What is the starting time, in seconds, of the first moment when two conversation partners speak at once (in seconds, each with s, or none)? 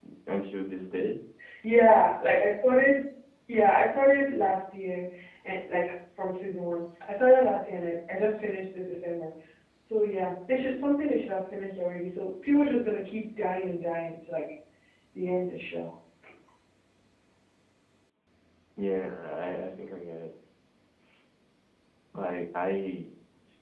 none